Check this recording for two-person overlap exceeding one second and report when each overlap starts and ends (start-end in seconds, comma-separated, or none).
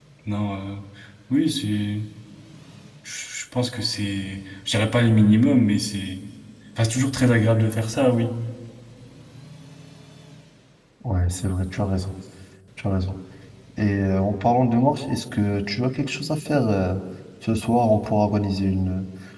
none